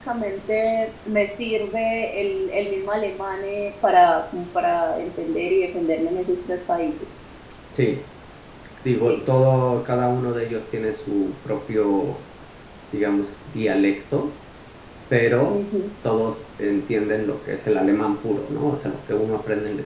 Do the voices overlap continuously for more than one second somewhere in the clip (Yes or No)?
No